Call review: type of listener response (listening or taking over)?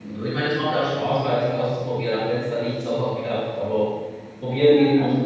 listening